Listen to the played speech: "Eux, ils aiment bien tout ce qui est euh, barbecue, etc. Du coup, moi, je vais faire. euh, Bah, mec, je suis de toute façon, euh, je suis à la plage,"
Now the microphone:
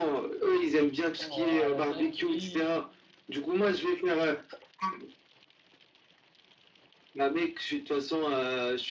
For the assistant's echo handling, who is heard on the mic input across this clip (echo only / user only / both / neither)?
both